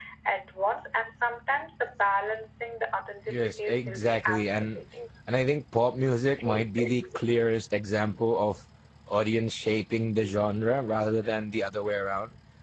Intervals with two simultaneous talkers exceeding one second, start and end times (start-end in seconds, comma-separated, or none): 3.3-4.8